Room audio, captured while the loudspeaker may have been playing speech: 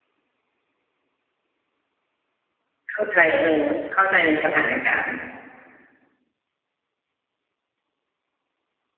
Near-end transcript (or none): เข้าใจ เออ เข้าใจในสถานการณ์